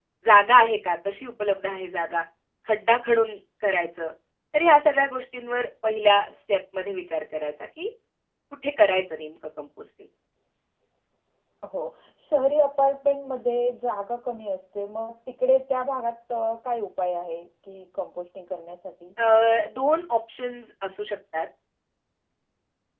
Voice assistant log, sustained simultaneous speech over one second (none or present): none